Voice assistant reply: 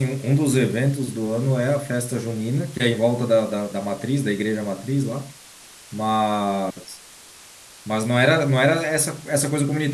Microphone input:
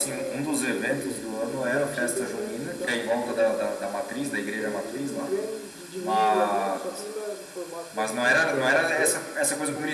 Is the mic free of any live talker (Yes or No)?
No